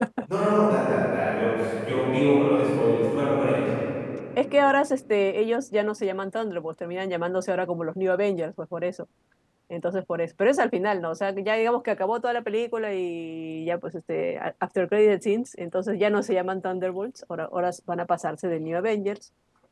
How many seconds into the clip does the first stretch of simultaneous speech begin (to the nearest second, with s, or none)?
none